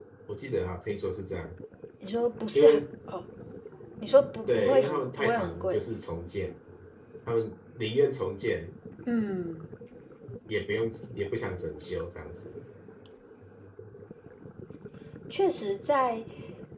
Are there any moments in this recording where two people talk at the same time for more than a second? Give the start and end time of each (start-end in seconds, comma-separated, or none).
4.5-5.8